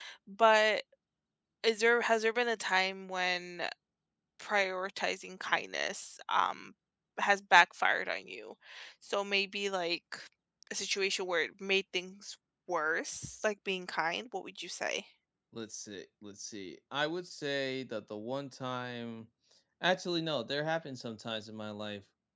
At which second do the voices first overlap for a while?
none

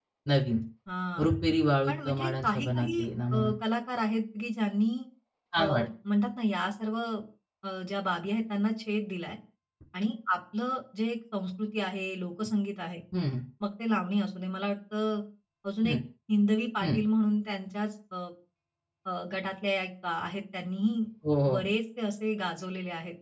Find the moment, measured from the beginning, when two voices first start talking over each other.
2 s

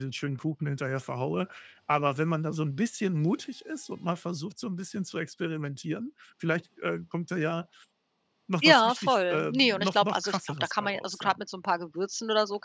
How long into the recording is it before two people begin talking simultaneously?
9 s

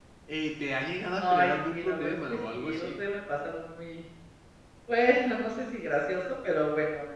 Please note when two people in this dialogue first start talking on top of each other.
1 s

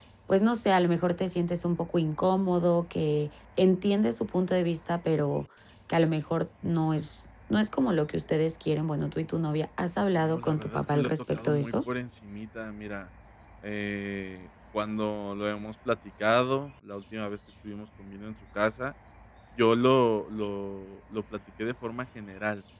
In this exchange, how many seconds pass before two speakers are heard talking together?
10 s

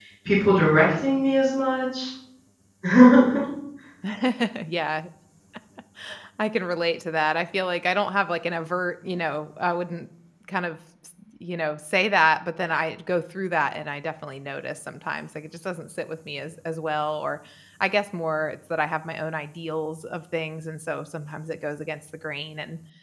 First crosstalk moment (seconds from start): none

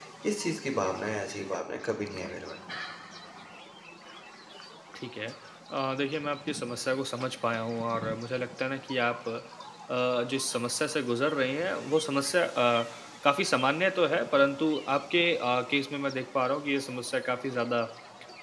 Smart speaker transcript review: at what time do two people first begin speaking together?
none

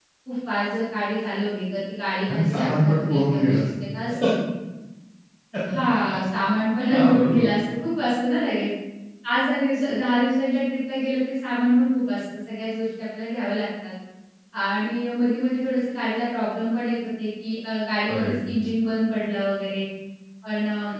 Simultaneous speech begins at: 2 s

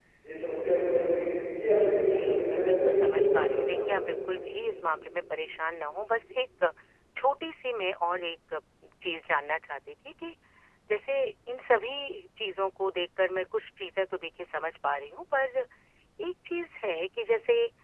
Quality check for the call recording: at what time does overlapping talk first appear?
2 s

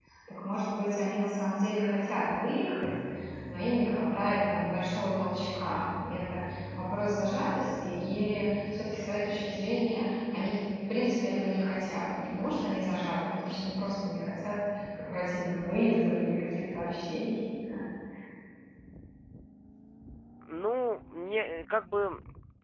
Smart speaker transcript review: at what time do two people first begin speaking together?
none

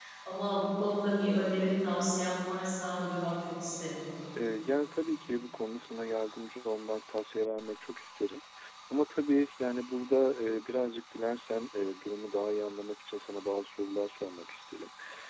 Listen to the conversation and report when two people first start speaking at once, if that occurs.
none

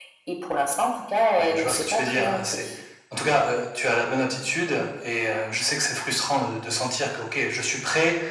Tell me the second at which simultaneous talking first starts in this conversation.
1 s

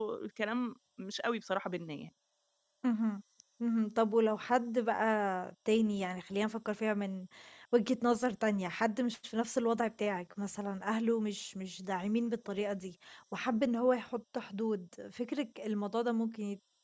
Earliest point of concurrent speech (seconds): none

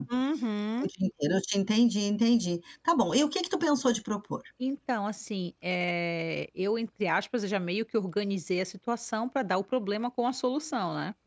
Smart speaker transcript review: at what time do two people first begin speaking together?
none

